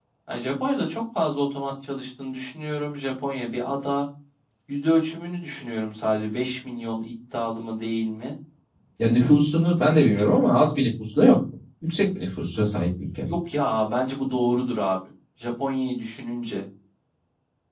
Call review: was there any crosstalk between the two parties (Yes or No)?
No